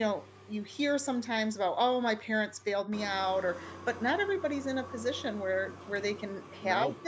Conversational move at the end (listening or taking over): listening